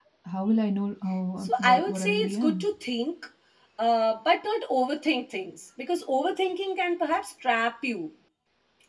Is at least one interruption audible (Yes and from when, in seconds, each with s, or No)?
Yes, from 1.4 s